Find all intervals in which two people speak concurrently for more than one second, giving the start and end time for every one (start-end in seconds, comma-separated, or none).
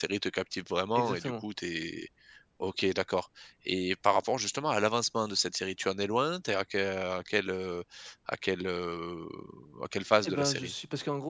none